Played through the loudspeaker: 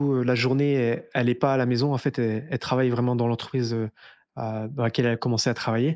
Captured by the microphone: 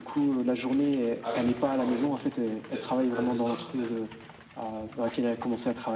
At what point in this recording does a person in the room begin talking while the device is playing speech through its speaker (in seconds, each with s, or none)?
1.2 s